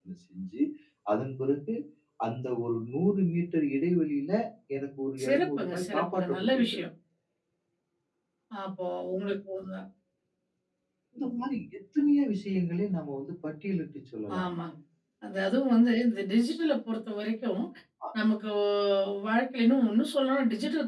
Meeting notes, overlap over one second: present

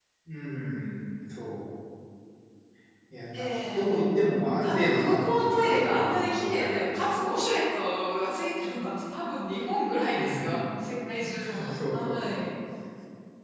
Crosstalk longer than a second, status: present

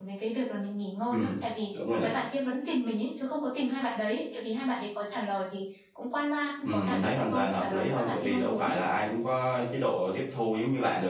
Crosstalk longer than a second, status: present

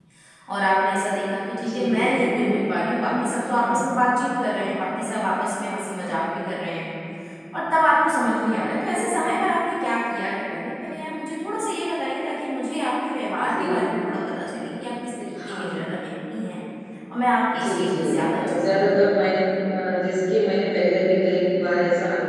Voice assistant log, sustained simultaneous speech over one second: present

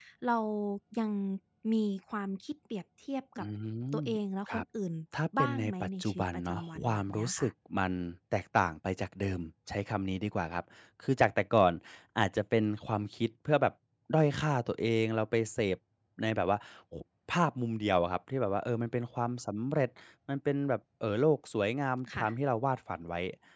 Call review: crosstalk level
present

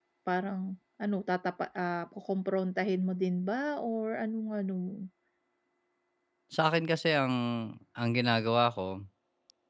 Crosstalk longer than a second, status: none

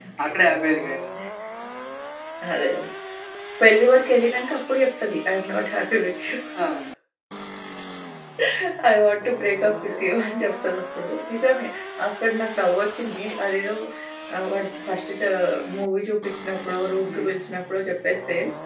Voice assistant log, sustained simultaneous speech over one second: none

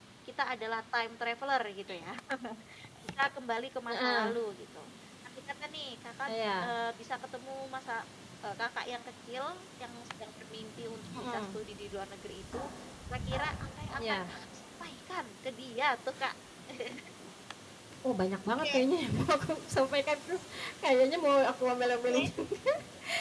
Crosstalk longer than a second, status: none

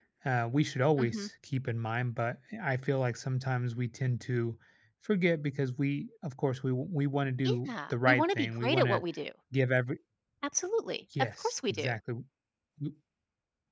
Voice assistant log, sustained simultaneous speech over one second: present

